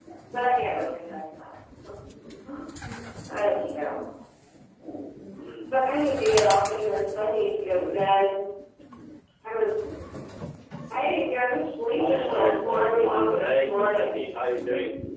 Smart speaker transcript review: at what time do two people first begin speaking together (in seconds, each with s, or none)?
12.0 s